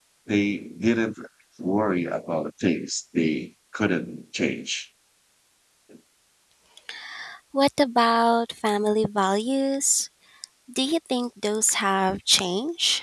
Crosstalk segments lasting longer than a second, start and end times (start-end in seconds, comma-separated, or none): none